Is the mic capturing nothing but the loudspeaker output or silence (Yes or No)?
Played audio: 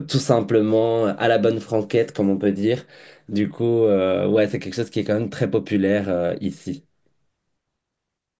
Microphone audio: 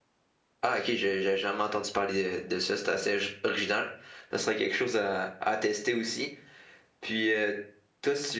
No